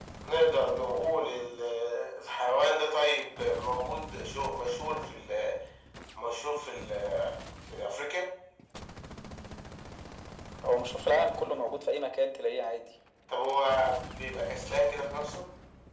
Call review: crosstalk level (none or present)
none